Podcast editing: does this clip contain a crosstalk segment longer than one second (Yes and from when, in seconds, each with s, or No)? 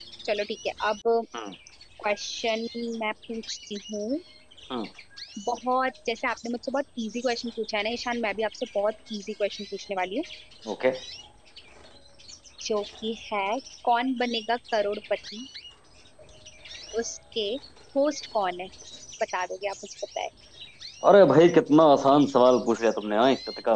No